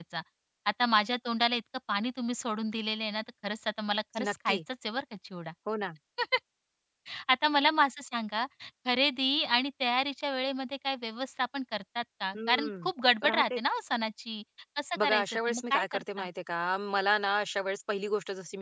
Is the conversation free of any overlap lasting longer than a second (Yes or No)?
No